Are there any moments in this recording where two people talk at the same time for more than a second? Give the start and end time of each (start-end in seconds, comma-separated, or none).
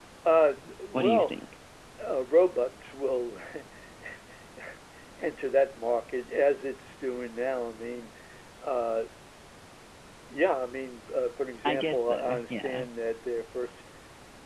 11.7-12.8